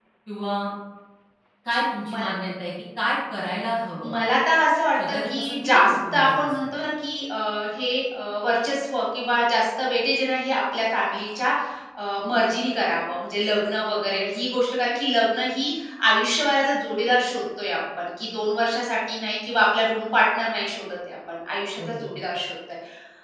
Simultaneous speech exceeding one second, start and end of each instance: 5.0-6.7

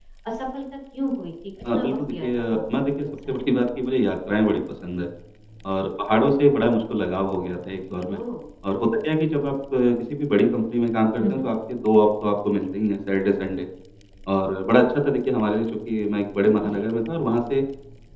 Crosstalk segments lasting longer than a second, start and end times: 1.7-3.5

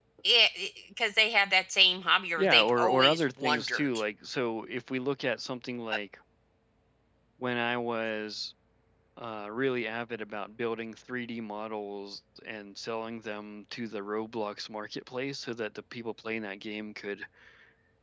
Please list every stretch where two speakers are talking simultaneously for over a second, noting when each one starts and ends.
2.4-3.9

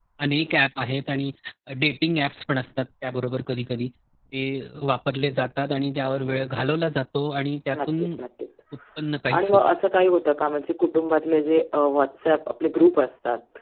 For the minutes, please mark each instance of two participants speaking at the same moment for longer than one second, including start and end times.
none

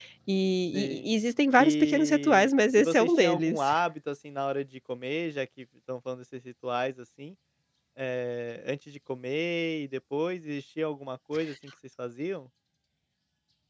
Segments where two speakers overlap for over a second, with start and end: 1.6-3.7

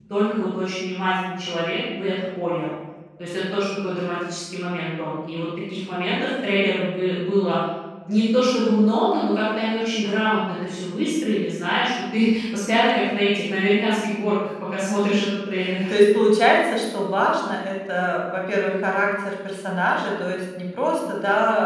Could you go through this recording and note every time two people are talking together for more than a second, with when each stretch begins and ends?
none

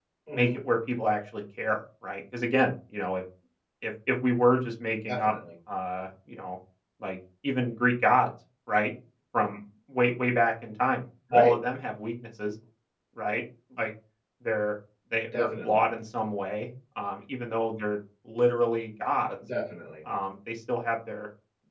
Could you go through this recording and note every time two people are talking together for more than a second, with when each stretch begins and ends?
none

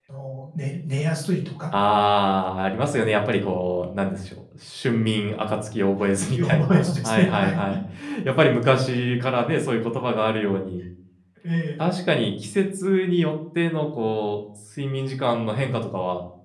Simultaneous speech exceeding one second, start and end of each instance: 6.2-7.6

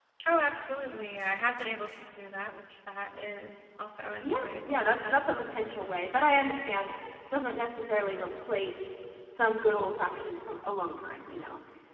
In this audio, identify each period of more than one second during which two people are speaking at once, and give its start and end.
4.2-5.5

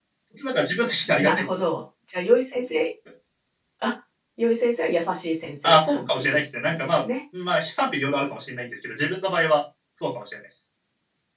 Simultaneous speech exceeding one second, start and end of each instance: 5.6-7.0

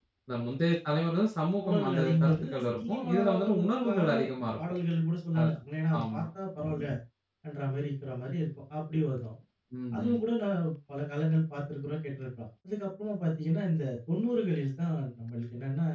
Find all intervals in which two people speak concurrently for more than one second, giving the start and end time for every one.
1.6-4.1

